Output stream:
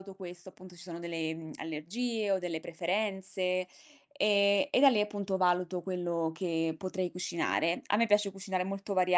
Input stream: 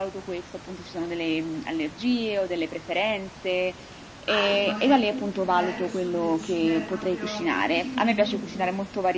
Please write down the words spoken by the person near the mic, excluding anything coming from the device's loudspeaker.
hai magari un criterio sul decidere proprio il menù?

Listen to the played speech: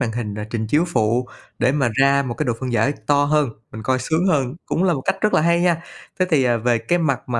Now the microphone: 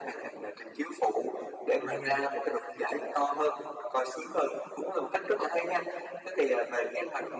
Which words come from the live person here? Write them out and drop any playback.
Đúng rồi.

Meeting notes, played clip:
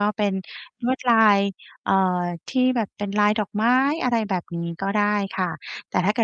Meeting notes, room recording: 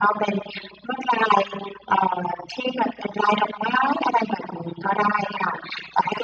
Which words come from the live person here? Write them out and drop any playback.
none

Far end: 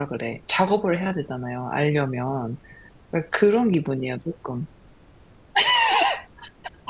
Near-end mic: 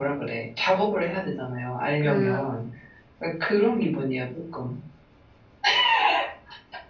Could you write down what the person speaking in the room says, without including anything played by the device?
그

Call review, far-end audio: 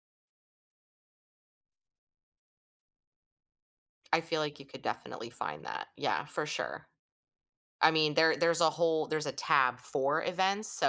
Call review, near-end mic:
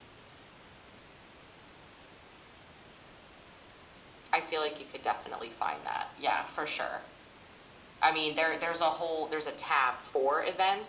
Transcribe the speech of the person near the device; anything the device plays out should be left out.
none

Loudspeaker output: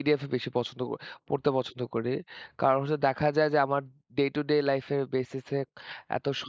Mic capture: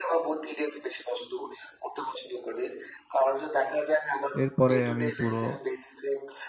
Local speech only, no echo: এরপরে আমি পুরো

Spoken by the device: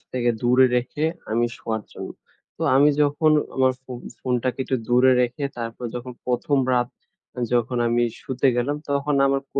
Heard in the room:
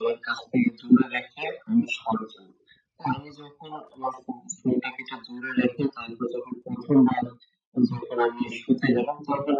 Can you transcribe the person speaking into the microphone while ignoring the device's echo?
none

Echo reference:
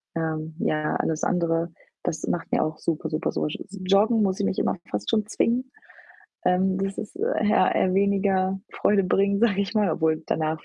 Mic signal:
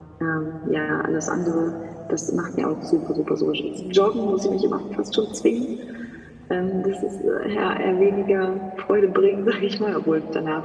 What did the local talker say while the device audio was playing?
none

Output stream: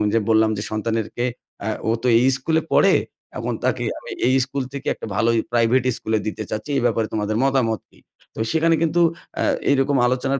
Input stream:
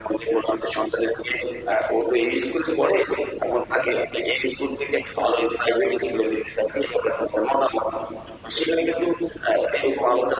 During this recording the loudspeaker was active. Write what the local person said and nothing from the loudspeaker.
none

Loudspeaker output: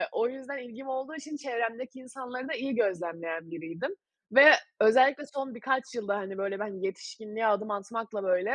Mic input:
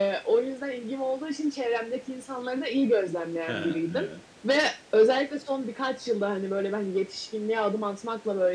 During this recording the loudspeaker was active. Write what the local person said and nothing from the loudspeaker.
He, he. Evet.

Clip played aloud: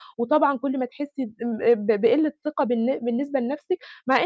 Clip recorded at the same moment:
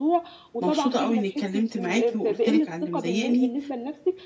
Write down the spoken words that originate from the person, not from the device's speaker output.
مبسوطة أو إنّي اتكلِّمت معاكِ، وقُلت لِك على اللي مضايقني،

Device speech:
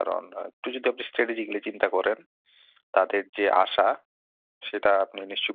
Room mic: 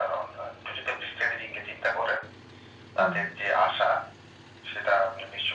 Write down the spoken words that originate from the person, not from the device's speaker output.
উম

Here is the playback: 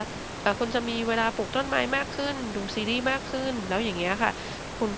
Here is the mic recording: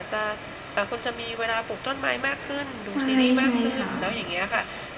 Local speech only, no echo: ใช่ ใช่ค่ะ

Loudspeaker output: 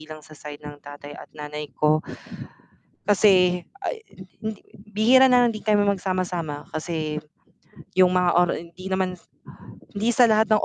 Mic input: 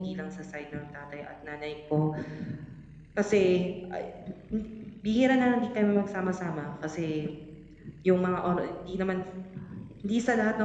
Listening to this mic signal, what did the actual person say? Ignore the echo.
none

